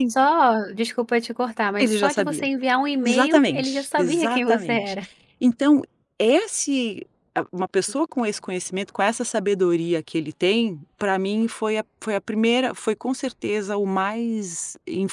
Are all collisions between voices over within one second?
No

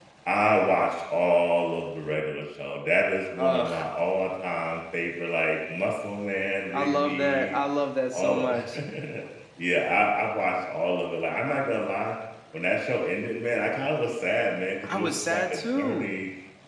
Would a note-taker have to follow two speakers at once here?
Yes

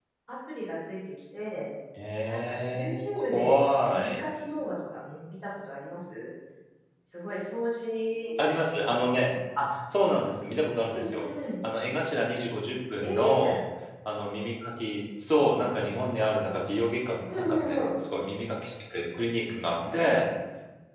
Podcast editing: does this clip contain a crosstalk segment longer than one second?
Yes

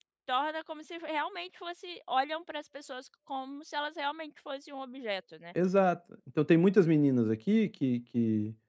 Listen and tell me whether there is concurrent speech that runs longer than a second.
No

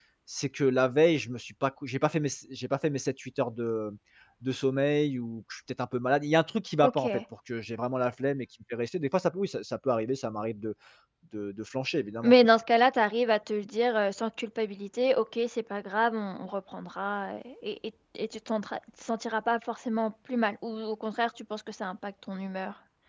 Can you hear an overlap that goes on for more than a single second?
No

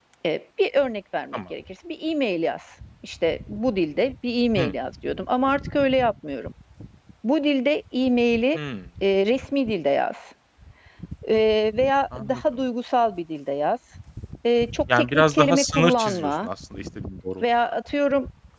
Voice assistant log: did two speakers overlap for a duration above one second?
Yes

